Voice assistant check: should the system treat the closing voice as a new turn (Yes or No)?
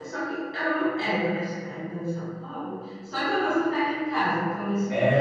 Yes